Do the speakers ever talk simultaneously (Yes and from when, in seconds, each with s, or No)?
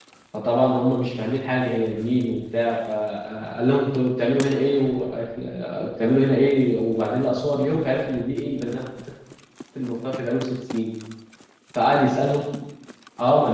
No